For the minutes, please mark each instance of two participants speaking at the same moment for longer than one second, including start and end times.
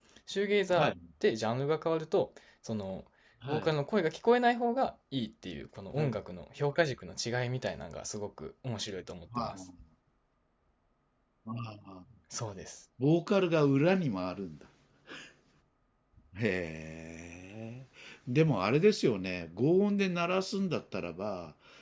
none

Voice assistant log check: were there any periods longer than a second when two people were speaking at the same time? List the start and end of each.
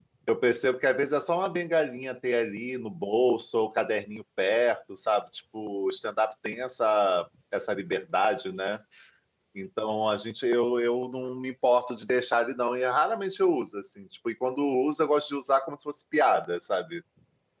none

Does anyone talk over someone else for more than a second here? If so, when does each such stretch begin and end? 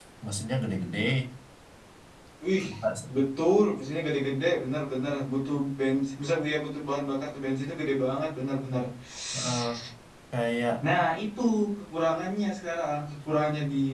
none

